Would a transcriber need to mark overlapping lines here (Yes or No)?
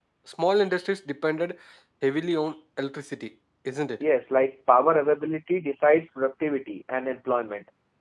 No